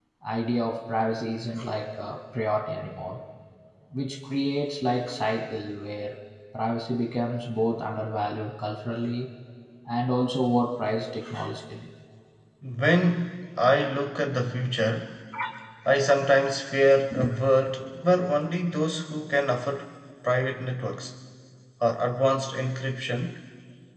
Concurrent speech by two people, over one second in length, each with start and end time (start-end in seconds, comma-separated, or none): none